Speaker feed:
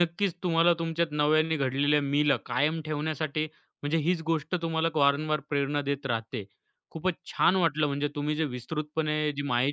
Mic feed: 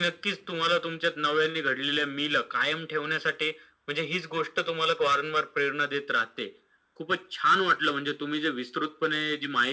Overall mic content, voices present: echo only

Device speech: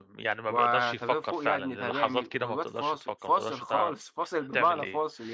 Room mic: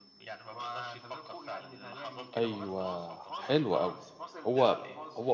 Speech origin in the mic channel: both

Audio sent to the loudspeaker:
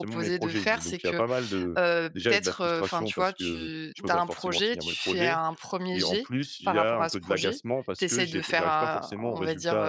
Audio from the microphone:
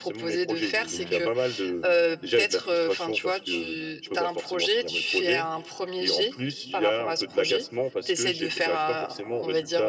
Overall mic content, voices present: both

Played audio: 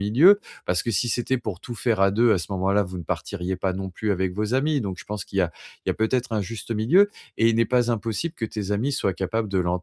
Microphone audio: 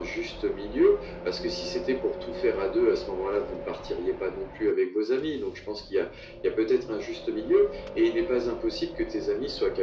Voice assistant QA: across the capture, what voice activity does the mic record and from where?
echo only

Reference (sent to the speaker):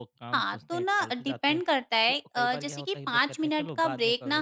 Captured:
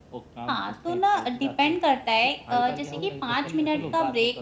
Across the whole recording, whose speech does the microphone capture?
both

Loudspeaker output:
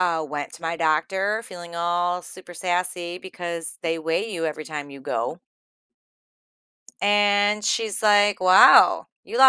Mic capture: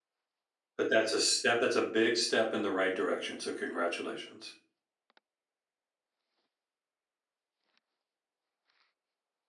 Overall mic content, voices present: user only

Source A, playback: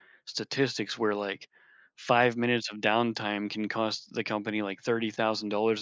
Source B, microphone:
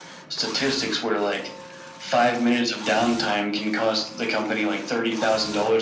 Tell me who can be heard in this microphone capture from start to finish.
echo only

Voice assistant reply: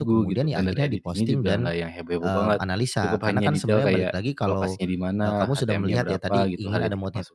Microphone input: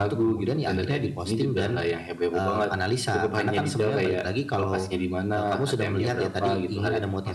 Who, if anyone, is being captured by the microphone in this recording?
echo only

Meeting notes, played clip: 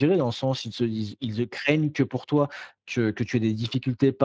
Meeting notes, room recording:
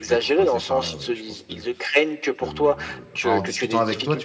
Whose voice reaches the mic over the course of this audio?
both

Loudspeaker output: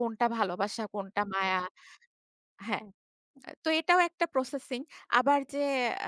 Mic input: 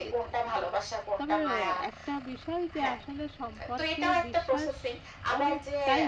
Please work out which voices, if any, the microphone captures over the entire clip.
both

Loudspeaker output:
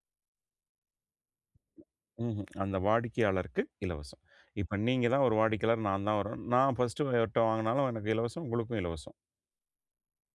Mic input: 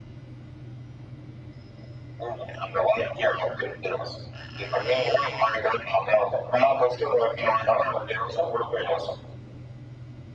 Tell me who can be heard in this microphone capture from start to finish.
echo only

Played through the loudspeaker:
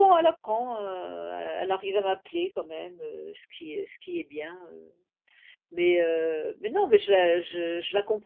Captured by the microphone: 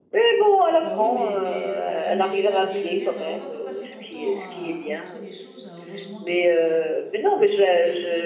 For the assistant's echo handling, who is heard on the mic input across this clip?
both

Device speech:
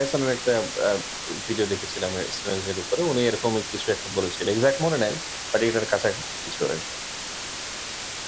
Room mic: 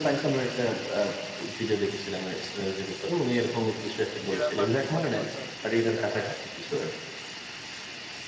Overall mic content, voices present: both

